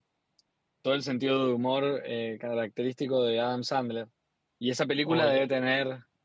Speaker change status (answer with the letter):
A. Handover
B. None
B